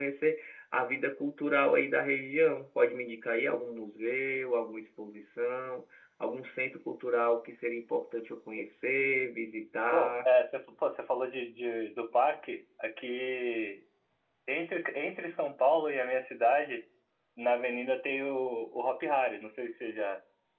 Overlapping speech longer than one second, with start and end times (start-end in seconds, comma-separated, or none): none